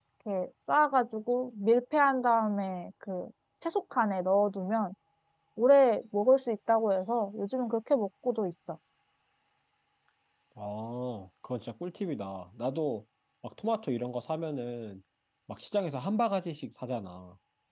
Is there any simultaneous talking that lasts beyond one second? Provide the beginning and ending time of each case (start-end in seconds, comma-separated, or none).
none